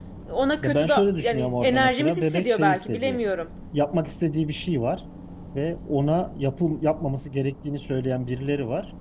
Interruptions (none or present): present